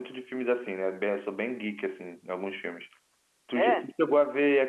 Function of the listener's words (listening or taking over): listening